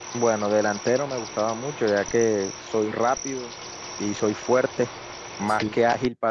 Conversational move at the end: listening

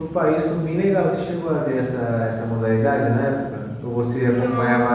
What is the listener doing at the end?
listening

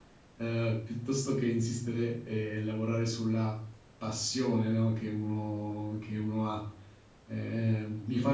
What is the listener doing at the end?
listening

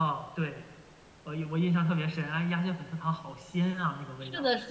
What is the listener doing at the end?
taking over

